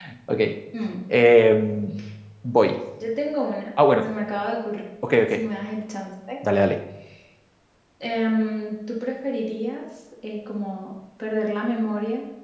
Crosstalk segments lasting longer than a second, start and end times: none

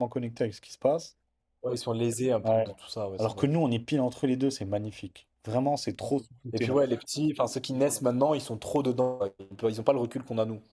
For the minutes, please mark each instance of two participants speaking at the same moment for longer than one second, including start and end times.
none

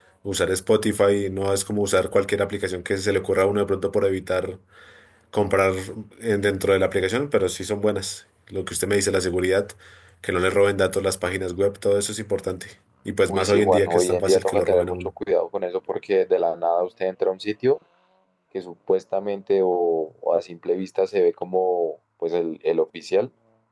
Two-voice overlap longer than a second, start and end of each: 13.3-15.1

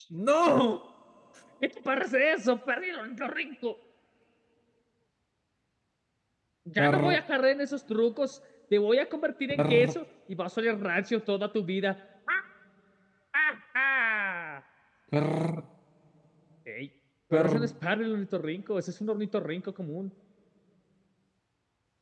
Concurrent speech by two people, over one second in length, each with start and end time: none

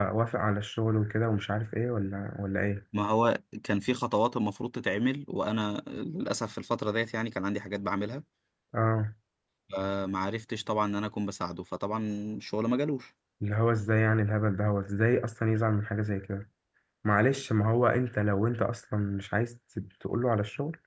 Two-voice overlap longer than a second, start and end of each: none

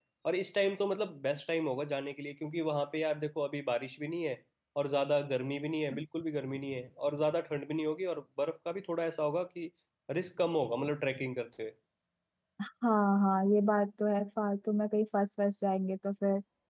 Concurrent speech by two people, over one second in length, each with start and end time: none

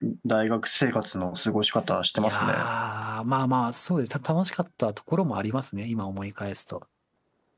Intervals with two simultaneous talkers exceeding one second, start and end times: none

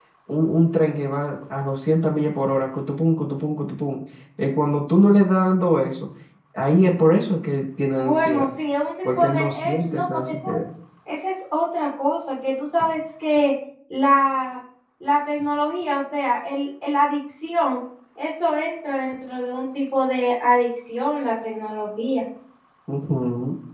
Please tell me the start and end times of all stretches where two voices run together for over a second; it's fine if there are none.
9.0-10.5

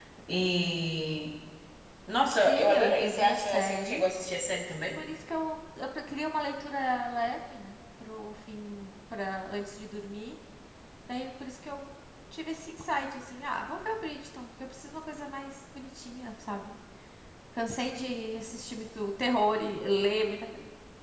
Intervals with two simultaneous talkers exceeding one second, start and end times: 2.5-4.1

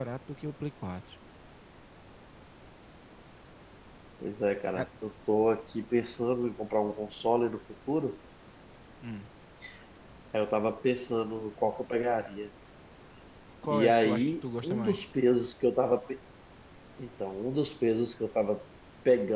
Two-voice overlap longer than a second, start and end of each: 13.7-15.0

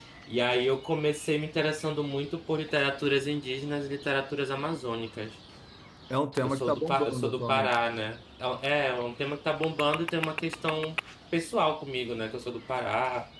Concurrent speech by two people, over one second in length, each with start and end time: 6.4-7.7

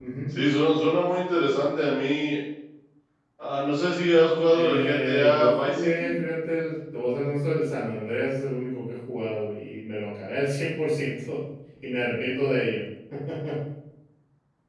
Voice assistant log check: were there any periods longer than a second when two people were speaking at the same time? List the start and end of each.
4.5-6.1

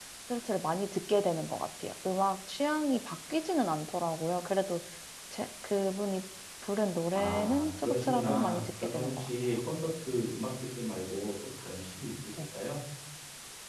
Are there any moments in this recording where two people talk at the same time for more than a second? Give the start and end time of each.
7.1-9.3

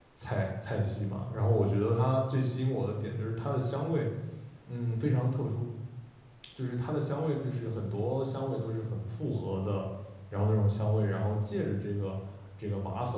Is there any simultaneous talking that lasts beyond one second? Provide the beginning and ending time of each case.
none

